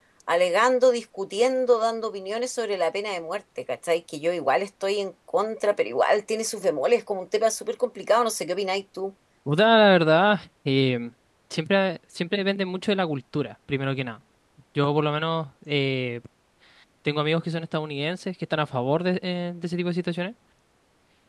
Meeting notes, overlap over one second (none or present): none